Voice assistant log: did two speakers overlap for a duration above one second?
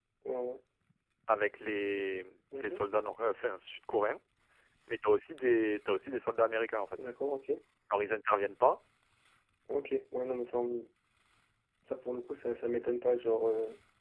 No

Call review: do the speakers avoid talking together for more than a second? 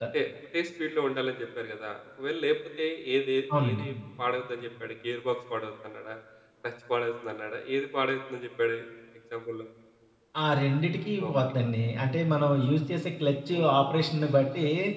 Yes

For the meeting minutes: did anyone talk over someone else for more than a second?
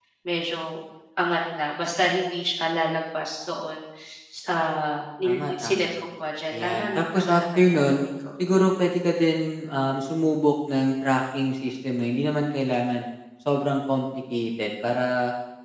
Yes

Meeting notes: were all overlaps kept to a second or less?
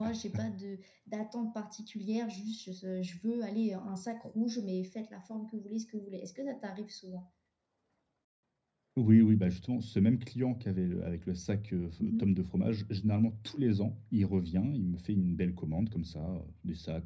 Yes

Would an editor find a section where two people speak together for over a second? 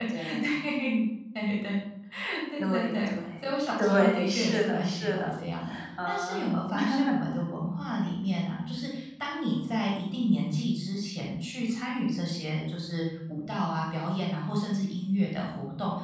Yes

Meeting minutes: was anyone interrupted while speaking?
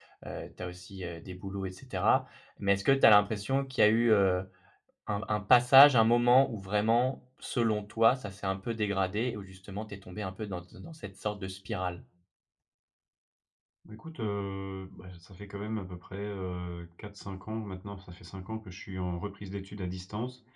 No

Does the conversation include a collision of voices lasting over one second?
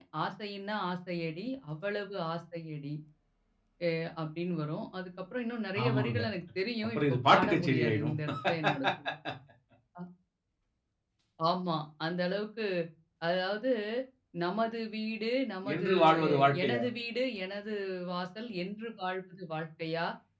Yes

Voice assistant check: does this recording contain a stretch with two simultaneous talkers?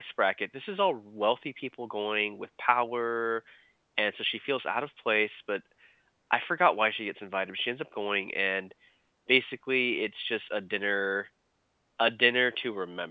No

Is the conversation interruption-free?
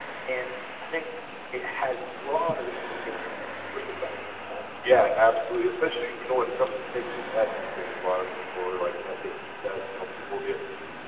Yes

